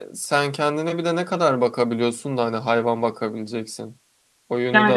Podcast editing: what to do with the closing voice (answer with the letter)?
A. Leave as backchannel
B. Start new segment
B